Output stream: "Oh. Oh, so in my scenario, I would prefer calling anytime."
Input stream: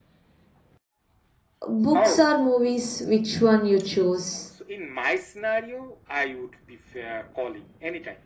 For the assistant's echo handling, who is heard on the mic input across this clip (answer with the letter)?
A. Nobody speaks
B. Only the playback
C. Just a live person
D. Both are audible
D